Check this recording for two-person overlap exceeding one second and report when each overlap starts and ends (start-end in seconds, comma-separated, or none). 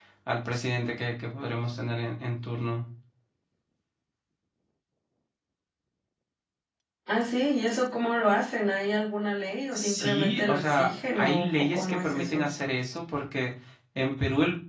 9.8-12.4